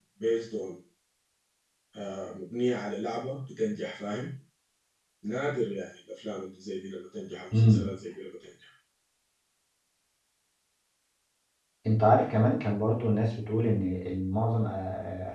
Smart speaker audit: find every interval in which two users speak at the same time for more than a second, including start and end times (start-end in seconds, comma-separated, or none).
none